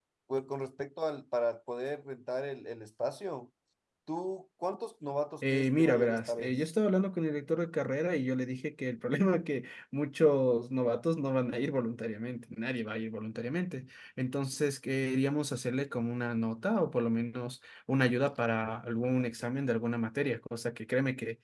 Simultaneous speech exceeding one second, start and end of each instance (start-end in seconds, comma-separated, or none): 5.4-6.7